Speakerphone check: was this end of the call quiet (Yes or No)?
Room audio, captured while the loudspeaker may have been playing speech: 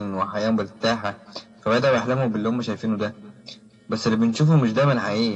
Yes